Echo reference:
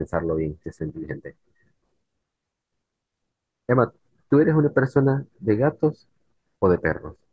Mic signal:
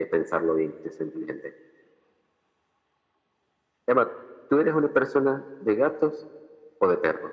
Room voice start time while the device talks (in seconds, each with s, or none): none